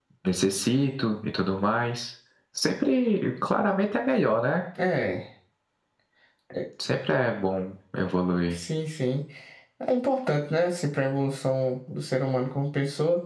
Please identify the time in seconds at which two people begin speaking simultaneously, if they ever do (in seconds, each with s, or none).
none